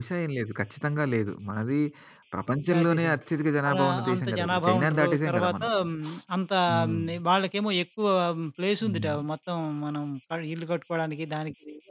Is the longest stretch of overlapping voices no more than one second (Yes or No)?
No